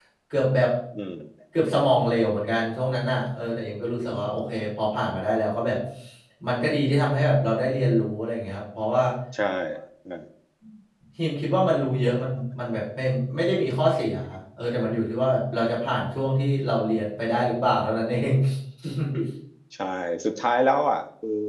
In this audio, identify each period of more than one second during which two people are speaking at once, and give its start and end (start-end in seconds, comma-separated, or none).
none